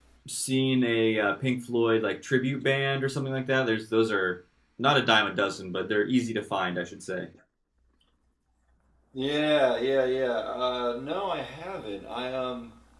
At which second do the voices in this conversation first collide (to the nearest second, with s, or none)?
none